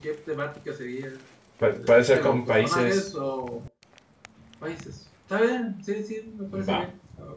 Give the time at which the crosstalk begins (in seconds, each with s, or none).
1.7 s